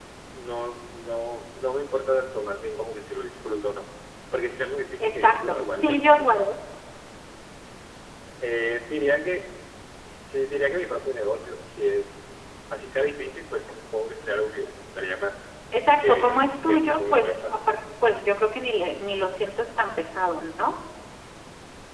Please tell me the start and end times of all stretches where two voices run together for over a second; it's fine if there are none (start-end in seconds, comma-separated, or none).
5.0-6.3, 16.0-17.6